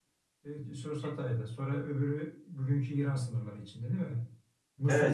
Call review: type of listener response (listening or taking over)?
taking over